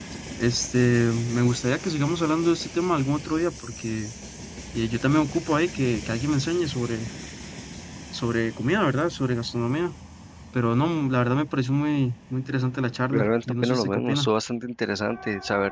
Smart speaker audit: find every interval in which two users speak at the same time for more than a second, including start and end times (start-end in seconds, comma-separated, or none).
13.1-14.3